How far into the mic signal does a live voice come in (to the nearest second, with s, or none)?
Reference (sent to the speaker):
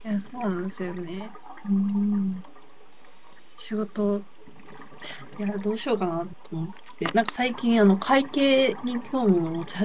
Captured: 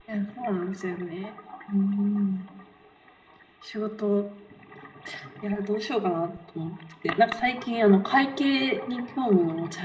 none